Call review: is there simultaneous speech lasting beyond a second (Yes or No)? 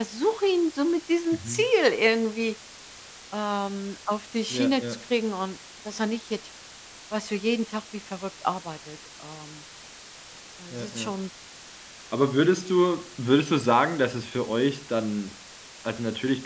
No